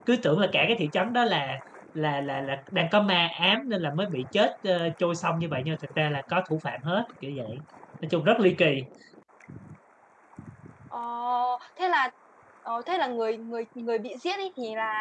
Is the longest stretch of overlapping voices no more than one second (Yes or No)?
Yes